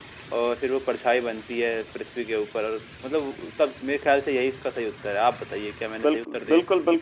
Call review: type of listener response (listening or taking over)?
taking over